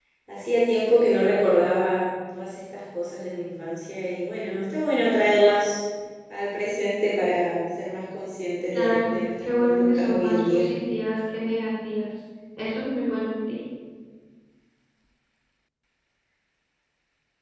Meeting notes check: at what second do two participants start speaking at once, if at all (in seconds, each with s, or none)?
8.7 s